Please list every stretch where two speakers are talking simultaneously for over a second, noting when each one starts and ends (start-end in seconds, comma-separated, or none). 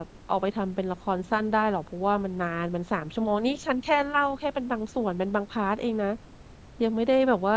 none